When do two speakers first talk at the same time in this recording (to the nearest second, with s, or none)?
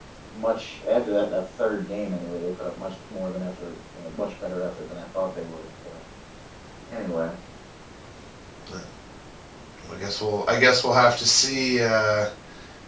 none